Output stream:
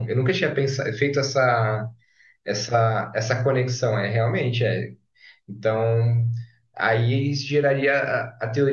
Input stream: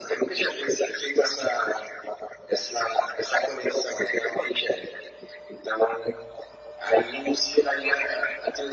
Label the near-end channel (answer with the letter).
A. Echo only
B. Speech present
A